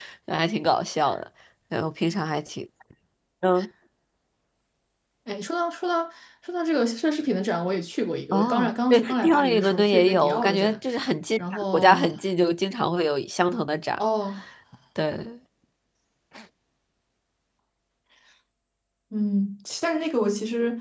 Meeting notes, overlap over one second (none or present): present